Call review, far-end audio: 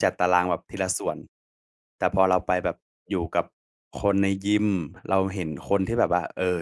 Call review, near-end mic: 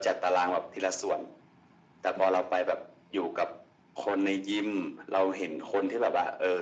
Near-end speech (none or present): none